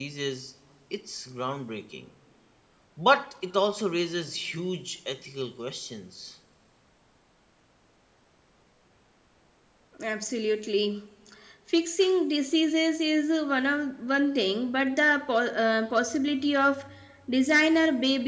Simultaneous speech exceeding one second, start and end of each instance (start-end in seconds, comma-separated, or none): none